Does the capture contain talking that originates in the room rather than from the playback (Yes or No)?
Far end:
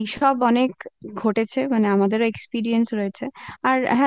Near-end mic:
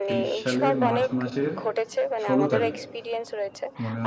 Yes